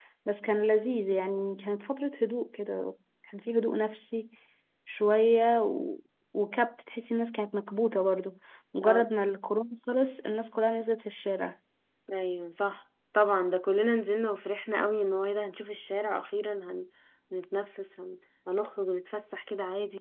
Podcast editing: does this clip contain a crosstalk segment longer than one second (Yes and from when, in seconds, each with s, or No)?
No